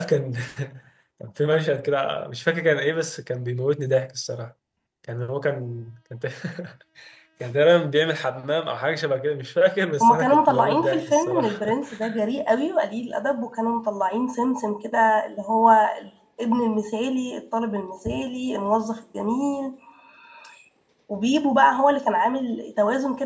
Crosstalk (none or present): present